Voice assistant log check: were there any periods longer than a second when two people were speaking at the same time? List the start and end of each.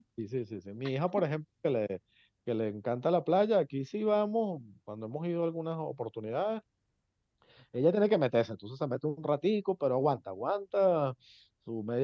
none

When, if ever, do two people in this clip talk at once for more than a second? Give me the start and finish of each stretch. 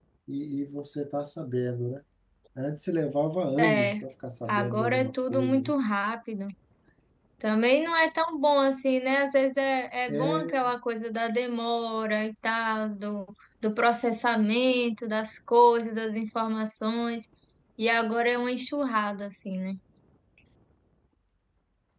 4.5-5.7

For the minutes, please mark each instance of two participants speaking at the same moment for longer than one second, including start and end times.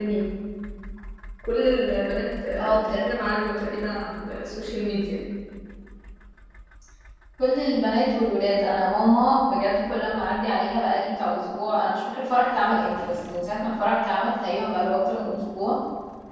none

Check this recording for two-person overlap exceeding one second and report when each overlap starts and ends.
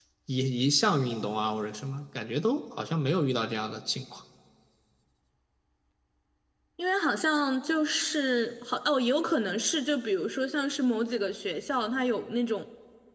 none

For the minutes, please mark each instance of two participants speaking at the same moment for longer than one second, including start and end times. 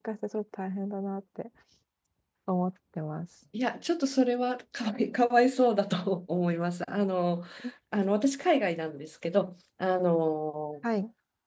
none

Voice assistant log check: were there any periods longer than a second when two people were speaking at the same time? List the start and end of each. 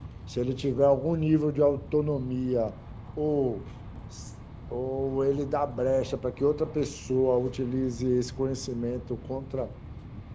none

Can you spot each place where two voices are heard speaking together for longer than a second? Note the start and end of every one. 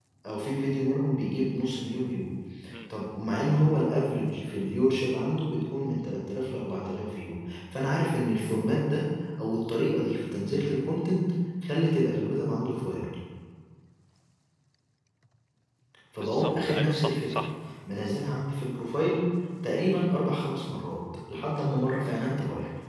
16.2-17.4

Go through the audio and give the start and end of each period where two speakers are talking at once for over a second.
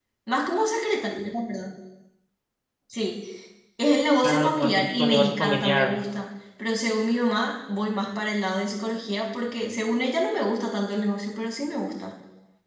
4.2-5.9

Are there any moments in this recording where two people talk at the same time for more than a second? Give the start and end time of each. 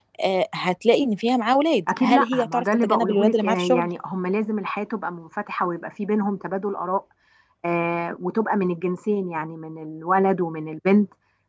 2.0-3.9

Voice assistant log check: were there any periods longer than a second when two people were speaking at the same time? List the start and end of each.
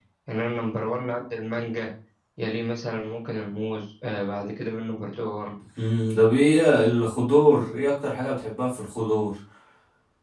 none

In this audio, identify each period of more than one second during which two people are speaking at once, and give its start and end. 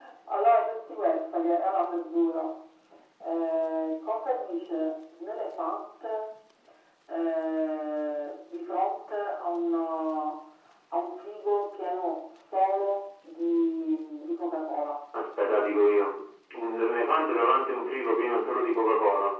none

